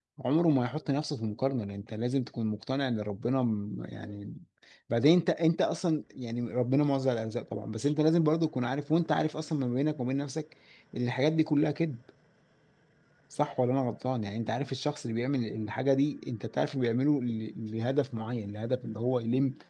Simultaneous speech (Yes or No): No